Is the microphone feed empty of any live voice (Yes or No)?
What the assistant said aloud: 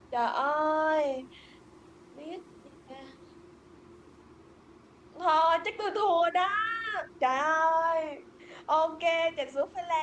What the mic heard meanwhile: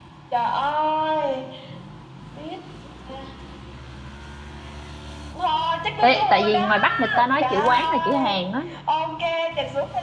No